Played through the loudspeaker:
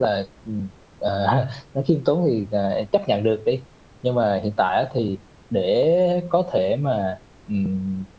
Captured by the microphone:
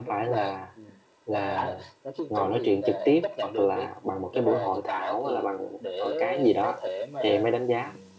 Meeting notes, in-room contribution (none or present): present